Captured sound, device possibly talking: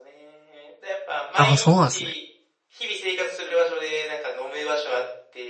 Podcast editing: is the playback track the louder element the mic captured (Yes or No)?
No